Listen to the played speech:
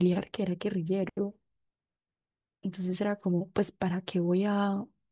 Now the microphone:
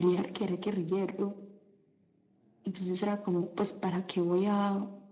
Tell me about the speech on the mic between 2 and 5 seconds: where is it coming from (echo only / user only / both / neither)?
echo only